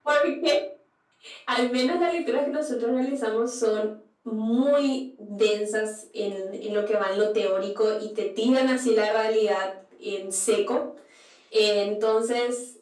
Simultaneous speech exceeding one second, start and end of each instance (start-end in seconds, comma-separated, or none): none